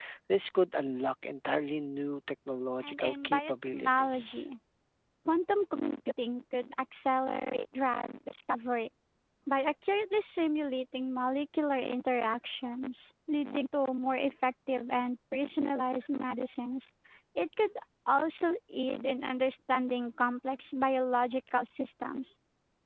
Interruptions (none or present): present